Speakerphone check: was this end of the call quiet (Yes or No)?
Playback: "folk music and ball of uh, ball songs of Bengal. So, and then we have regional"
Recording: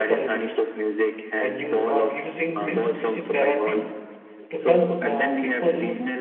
No